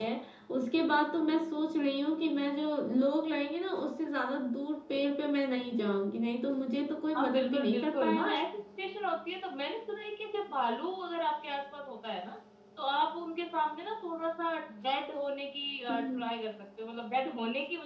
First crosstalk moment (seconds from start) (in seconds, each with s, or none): 7.2 s